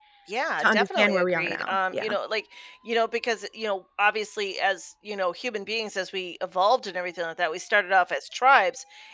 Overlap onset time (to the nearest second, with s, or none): 1 s